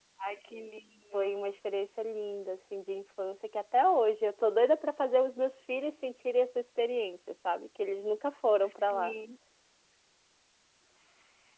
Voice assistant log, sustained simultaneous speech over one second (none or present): none